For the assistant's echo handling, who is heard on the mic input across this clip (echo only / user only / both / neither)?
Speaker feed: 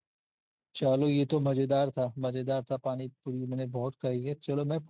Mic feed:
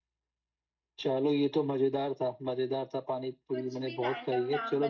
both